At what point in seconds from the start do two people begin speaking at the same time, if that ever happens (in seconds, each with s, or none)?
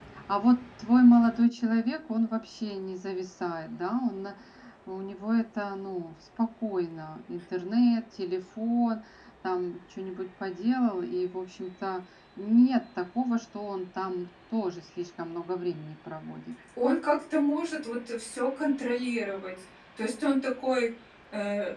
none